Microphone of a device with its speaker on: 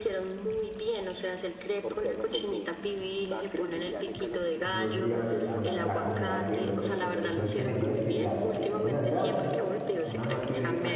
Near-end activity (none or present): present